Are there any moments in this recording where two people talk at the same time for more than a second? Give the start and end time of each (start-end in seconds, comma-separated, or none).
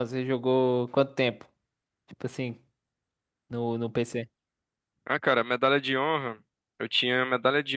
none